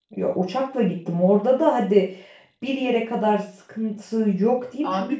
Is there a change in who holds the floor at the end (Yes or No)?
Yes